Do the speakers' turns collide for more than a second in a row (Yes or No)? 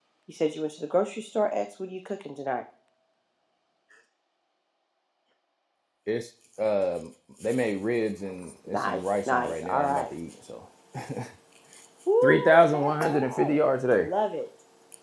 Yes